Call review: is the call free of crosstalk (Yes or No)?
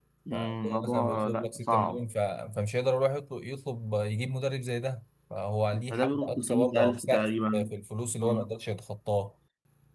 No